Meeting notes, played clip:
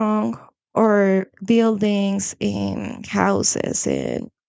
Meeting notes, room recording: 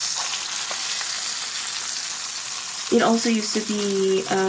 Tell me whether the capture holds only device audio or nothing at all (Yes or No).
No